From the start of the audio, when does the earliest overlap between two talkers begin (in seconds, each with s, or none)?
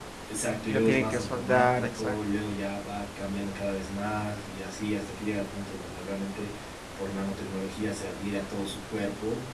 0.7 s